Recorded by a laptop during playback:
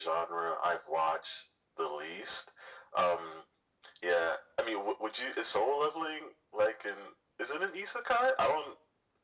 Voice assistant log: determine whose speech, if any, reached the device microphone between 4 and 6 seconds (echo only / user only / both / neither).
echo only